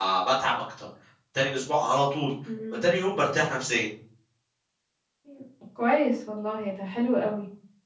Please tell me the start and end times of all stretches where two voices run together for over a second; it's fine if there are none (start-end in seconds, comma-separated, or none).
none